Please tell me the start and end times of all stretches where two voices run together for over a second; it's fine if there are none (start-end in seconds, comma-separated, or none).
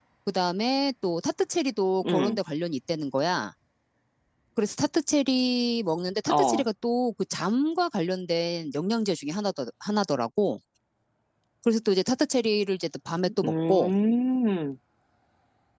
none